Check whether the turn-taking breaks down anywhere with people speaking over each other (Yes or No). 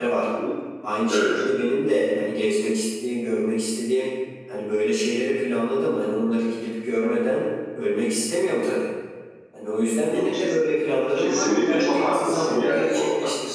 Yes